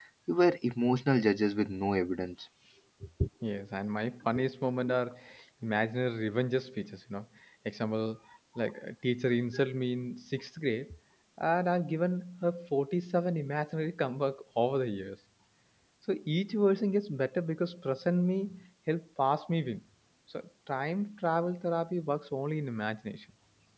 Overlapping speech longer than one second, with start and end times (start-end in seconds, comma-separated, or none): none